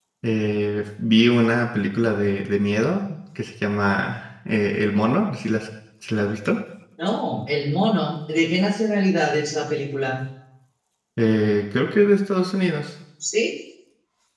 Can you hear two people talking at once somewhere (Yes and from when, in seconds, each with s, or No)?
No